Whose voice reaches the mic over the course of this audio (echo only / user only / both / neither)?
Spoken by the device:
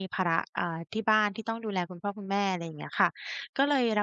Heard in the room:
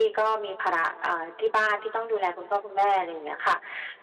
echo only